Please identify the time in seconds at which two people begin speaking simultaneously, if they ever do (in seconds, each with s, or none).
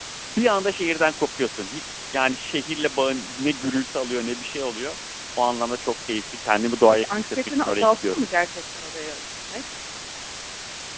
7.0 s